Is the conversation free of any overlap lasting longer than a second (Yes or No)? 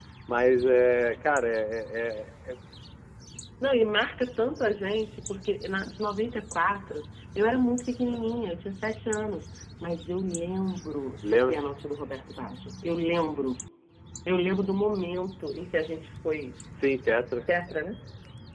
Yes